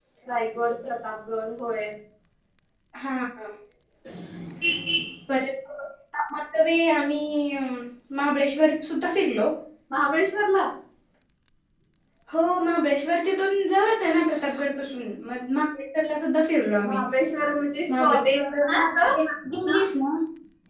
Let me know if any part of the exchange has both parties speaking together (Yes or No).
Yes